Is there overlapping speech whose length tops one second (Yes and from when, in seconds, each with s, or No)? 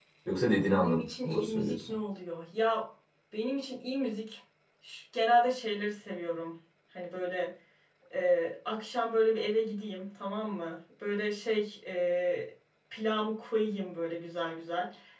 Yes, from 0.7 s